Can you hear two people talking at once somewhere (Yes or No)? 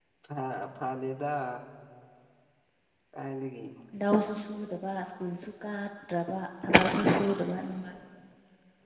No